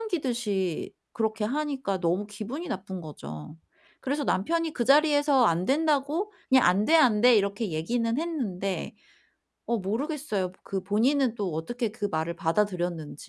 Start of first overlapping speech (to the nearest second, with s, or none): none